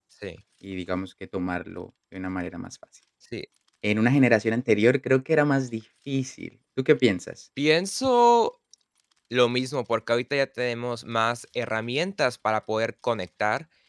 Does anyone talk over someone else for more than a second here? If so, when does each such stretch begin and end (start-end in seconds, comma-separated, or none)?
none